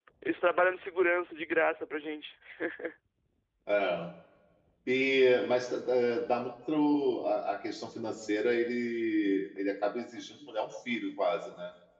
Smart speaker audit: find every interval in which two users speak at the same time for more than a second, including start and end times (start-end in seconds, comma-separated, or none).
none